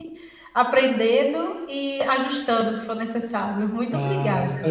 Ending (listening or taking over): taking over